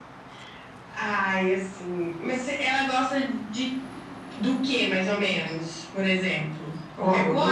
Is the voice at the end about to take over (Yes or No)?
Yes